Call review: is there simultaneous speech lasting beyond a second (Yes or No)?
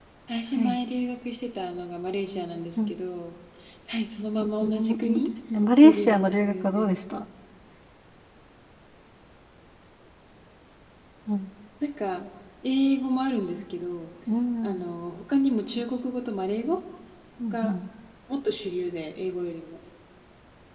Yes